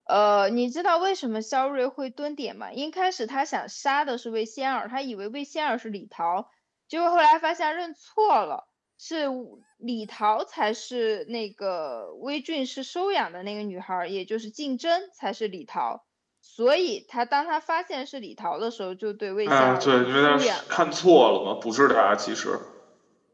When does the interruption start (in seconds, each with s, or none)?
19.5 s